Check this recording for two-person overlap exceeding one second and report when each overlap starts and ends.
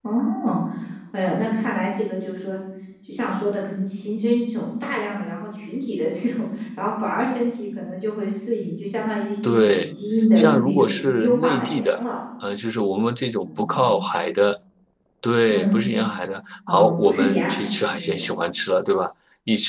10.4-12.0, 16.7-18.3

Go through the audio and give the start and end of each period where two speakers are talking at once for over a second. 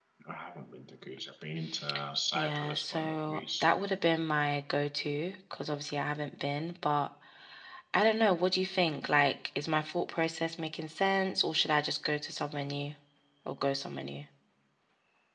2.3-3.6

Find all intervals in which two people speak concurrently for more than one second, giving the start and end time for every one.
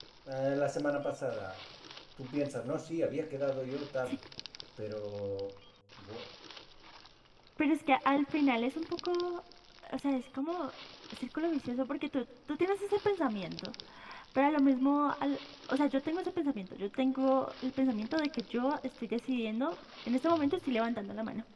none

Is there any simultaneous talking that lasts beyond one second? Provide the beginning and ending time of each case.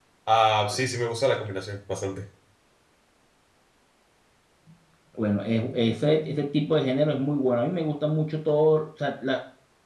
none

